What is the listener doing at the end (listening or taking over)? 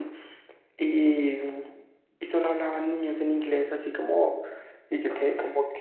listening